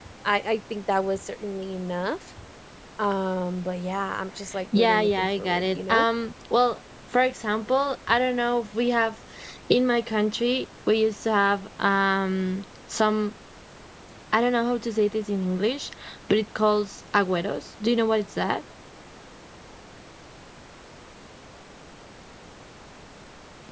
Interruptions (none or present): present